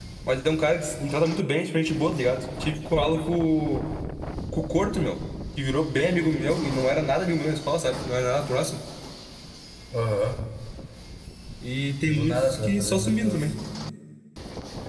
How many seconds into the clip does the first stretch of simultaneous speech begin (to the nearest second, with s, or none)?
12 s